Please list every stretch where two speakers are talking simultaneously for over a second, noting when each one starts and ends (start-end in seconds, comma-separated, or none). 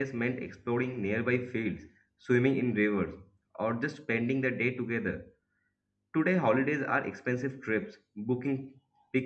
none